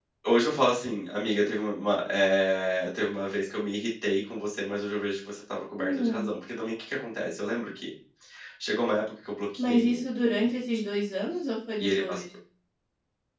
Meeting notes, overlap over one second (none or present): none